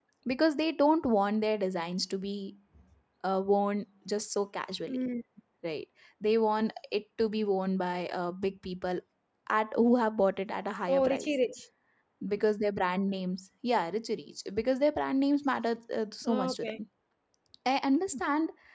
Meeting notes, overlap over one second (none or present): none